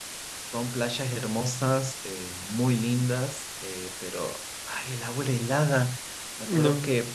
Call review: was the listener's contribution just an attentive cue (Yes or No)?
Yes